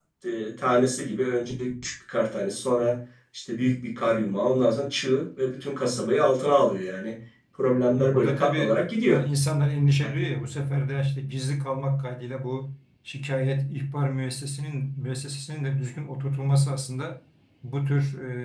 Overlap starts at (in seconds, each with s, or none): 8.0 s